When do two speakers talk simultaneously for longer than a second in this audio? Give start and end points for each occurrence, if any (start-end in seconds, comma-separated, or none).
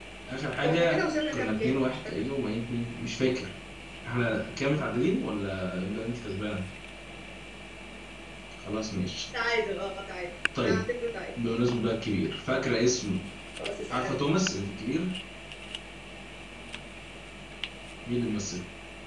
0.6-2.2